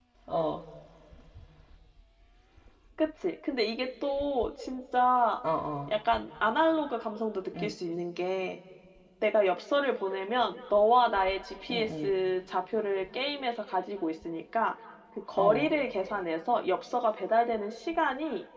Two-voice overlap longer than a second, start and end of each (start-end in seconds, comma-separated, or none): none